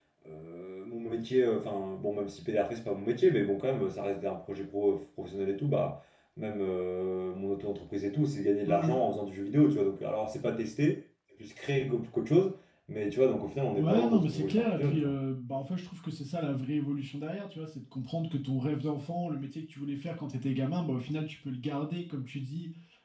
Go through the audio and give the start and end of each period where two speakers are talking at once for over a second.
13.8-15.1

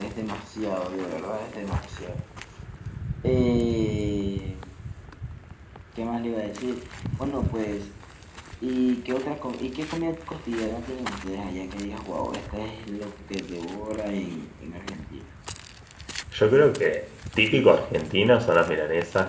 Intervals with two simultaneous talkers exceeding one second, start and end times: none

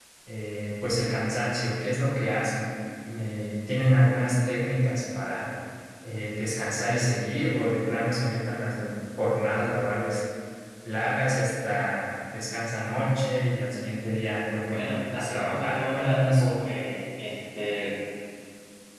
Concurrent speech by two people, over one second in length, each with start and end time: 14.7-16.6

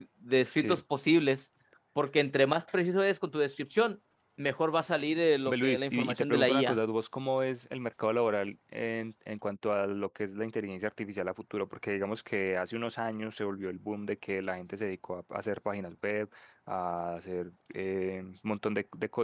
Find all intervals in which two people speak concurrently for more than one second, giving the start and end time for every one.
5.5-6.8

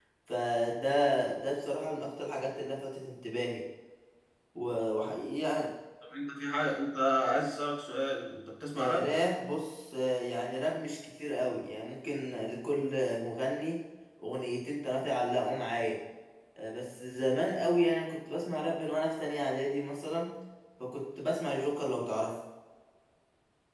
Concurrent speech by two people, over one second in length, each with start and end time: none

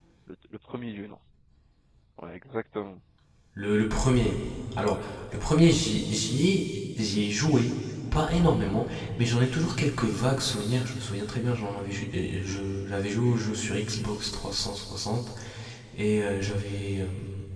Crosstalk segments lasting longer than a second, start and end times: none

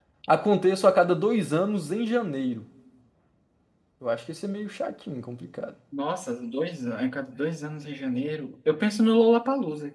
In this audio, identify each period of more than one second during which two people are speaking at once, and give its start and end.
none

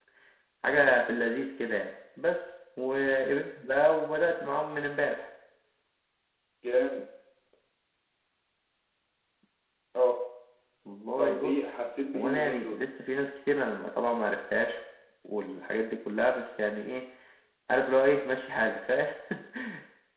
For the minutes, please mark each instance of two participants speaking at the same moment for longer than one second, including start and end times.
11.2-12.8

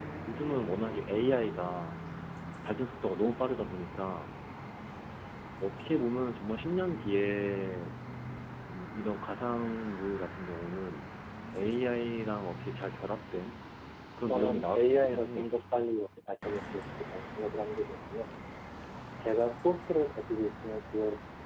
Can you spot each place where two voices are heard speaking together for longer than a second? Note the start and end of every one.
14.3-16.0

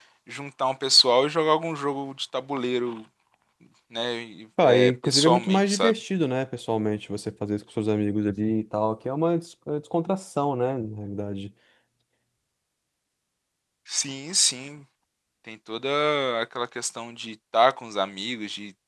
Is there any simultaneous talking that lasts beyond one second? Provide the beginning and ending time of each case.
4.6-5.9

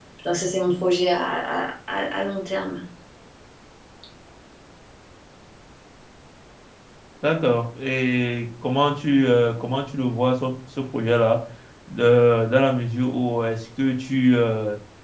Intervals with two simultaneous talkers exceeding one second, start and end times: none

